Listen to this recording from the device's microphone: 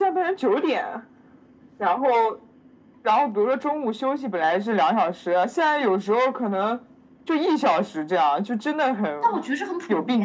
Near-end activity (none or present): present